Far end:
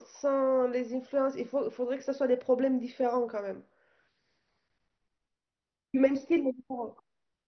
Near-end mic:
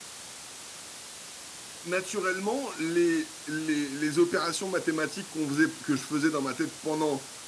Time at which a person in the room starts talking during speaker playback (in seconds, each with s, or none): 1.8 s